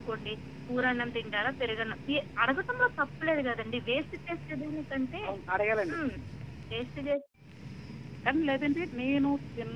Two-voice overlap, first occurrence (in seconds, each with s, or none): none